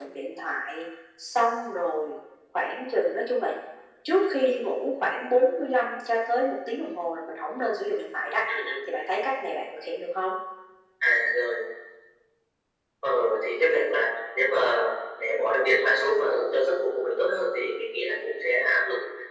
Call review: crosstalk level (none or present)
none